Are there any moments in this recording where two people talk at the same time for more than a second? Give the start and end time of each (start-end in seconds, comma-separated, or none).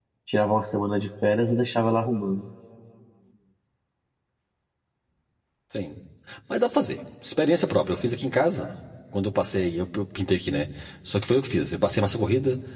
none